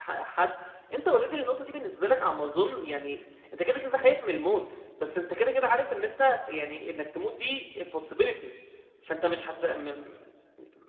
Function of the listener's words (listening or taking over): listening